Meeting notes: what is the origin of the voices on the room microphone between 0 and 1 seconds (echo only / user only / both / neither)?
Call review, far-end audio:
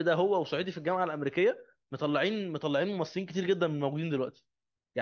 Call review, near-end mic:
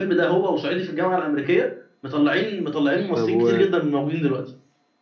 echo only